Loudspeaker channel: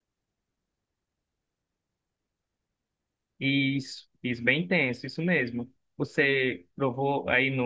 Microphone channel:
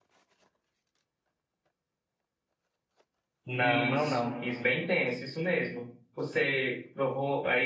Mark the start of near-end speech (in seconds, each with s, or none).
3.5 s